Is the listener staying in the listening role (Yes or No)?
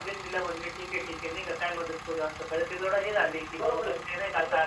No